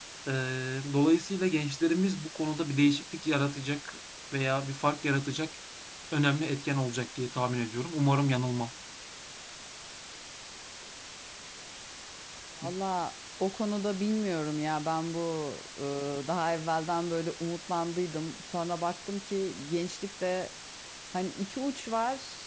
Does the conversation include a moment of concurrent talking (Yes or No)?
No